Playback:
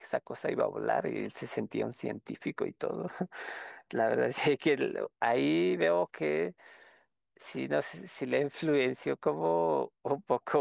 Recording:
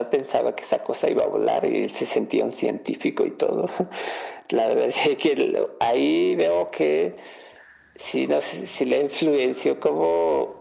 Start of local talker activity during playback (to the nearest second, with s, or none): none